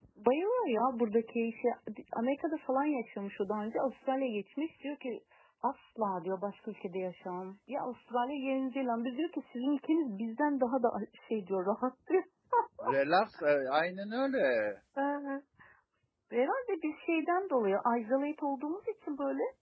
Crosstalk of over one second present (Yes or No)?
No